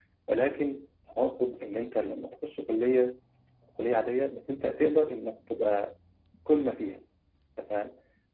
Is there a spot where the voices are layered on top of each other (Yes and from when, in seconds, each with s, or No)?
No